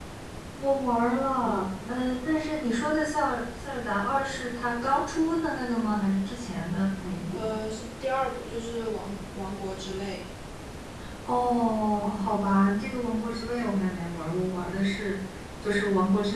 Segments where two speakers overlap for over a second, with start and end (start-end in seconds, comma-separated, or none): none